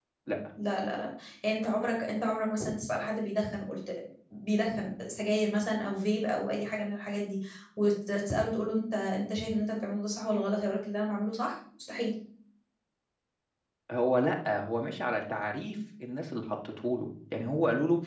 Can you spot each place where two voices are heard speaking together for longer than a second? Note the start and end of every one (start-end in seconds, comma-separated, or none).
none